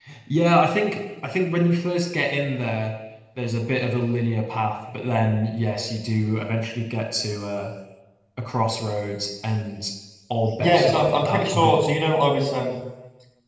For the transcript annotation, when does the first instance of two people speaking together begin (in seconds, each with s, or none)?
10.6 s